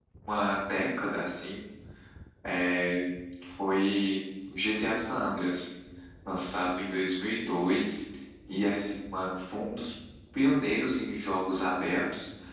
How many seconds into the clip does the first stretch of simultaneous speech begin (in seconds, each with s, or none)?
none